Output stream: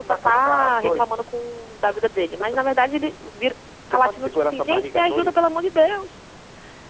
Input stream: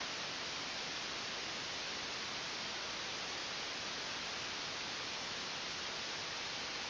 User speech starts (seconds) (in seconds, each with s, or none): none